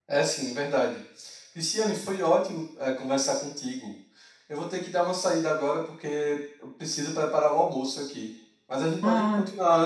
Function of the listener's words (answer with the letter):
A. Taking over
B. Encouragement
B